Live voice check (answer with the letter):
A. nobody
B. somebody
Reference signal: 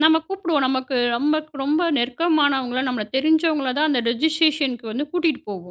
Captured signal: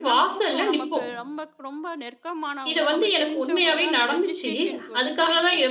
B